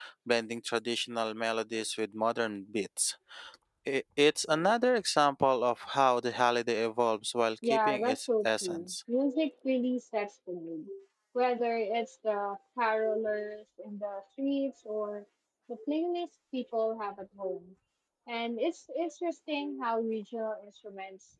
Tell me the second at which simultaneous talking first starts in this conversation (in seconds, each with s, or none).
7.6 s